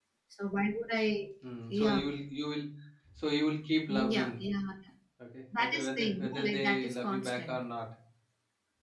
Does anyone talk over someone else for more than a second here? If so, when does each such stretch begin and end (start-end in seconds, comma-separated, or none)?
5.6-7.6